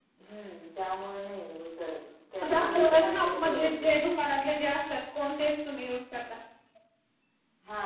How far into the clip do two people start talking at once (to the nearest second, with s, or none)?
2 s